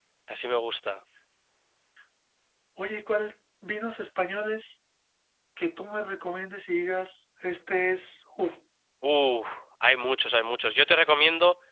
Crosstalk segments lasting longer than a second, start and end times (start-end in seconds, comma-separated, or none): none